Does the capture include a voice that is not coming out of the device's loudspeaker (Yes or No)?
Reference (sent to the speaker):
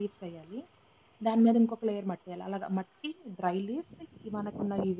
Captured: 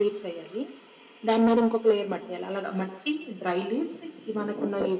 No